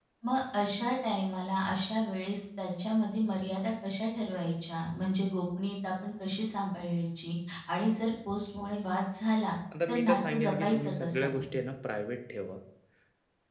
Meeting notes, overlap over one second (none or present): present